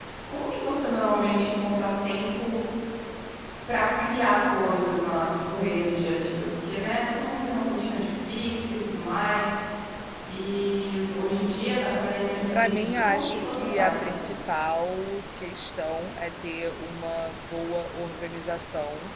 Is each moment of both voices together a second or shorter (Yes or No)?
No